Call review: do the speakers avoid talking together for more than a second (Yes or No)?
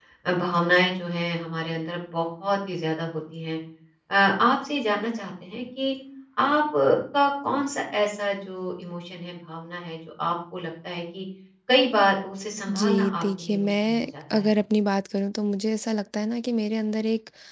No